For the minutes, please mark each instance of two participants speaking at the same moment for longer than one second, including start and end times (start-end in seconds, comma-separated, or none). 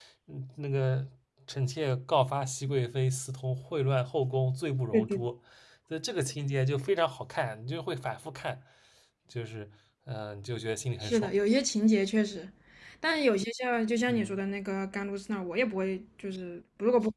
none